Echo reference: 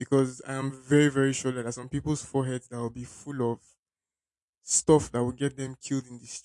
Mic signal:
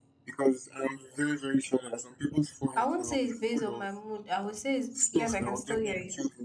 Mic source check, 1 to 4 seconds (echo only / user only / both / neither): both